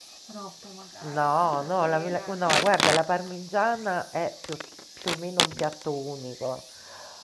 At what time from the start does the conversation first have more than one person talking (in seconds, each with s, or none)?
1.2 s